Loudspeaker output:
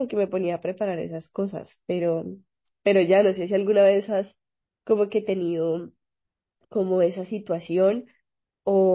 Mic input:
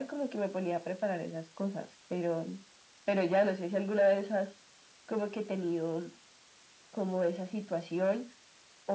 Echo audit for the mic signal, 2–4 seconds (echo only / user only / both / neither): echo only